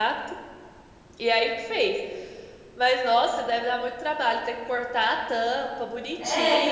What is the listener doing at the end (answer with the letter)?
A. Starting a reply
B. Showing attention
A